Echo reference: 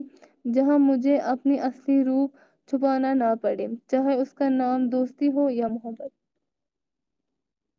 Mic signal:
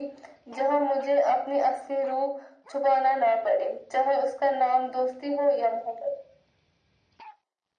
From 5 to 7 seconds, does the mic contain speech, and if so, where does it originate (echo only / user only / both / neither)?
echo only